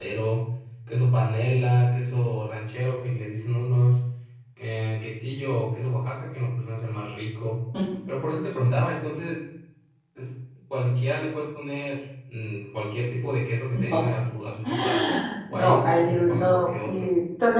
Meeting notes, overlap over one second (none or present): present